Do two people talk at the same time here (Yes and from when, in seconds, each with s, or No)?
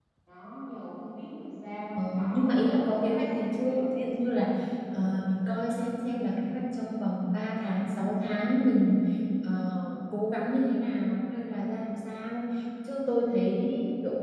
Yes, from 1.9 s